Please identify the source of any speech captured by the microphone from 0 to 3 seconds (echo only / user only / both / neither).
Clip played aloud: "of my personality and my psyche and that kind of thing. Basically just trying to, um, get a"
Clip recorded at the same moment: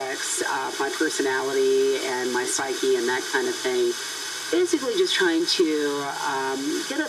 echo only